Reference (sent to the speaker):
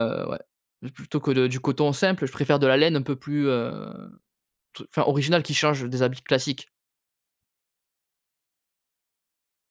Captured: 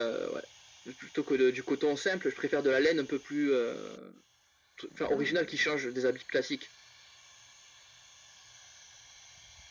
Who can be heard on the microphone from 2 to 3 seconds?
echo only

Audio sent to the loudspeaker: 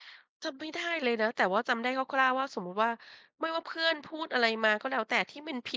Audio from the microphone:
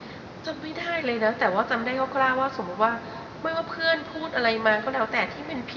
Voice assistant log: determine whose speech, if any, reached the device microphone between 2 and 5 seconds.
echo only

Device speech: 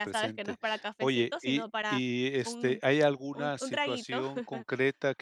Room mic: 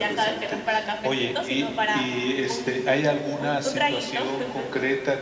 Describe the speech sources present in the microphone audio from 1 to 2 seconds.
echo only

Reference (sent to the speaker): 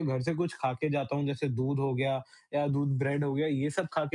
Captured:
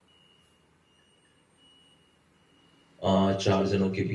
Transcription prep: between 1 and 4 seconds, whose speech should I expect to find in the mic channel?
user only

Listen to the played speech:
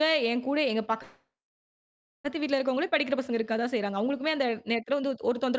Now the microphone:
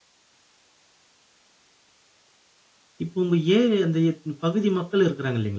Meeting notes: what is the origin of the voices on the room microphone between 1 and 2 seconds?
neither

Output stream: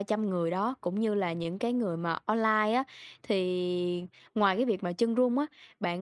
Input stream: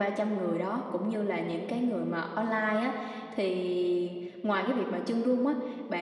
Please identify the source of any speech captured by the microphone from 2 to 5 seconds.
echo only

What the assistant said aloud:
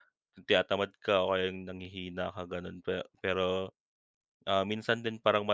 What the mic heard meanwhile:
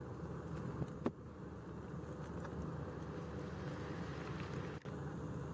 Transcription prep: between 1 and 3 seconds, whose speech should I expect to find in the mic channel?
neither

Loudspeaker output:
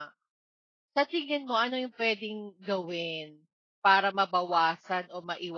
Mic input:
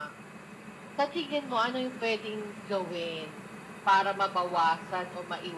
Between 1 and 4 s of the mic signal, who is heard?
echo only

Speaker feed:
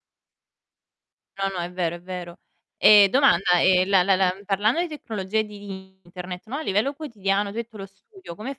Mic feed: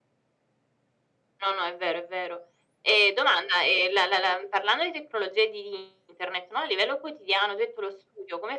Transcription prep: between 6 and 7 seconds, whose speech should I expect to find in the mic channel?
echo only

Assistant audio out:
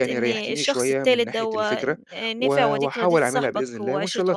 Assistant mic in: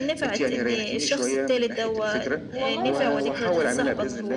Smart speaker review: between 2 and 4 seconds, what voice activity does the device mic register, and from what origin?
both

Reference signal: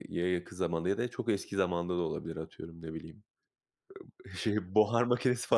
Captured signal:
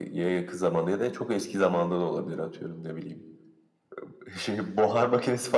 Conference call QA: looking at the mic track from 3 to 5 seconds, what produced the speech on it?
echo only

